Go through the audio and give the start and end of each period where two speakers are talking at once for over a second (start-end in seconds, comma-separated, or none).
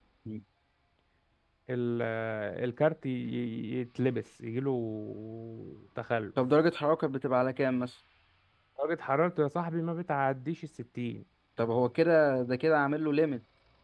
none